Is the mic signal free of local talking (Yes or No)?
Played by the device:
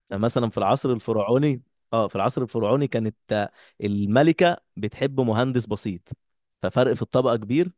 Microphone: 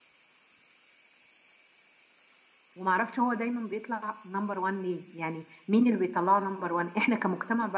No